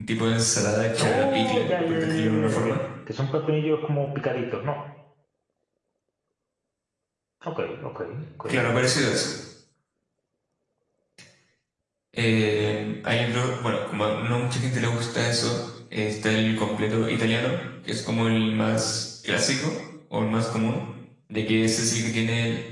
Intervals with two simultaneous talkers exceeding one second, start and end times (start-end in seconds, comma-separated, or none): 1.0-2.8